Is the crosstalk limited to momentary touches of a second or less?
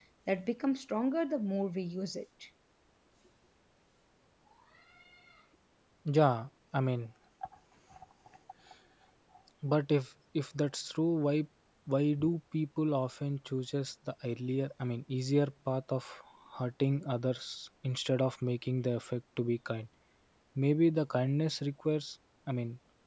Yes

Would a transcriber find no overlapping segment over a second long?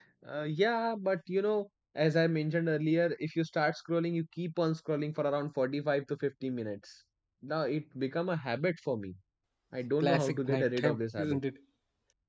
No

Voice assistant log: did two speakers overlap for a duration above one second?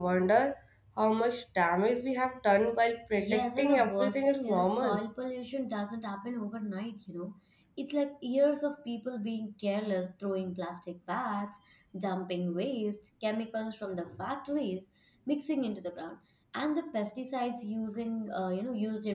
Yes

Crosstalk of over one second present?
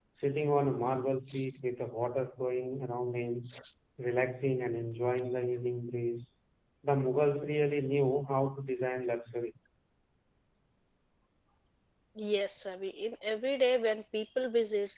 No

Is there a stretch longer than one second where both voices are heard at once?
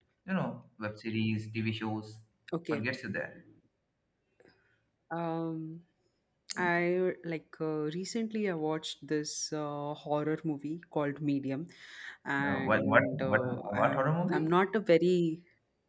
Yes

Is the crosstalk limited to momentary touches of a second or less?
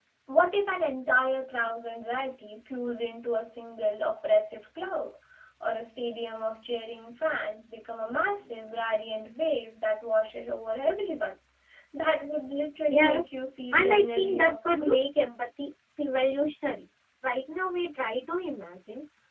No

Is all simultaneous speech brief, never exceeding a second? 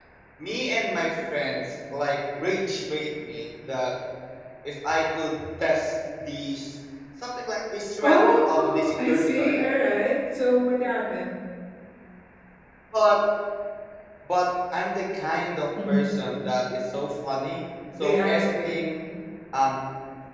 No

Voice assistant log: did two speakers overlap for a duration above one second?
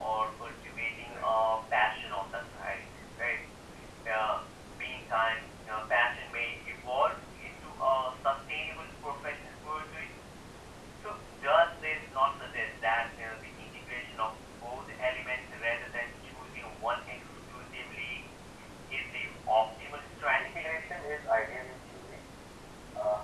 No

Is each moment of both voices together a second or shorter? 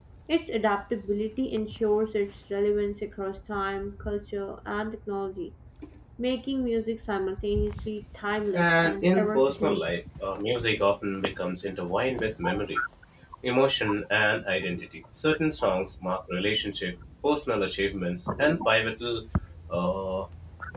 No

